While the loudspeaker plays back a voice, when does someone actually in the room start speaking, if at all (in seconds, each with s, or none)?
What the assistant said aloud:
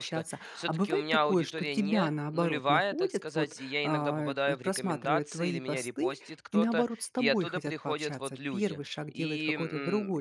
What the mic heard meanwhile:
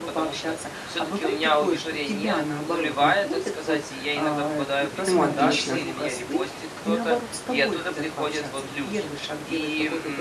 5.0 s